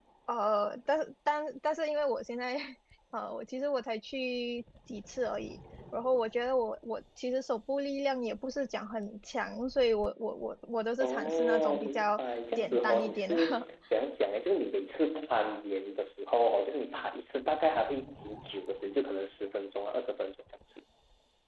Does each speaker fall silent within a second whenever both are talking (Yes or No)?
No